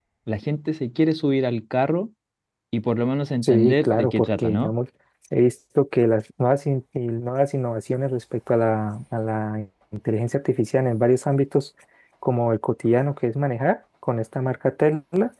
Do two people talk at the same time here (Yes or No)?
Yes